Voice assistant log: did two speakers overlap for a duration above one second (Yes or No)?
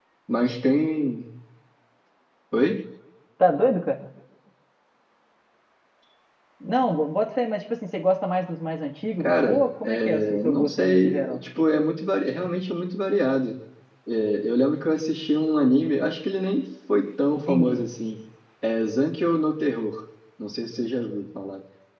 Yes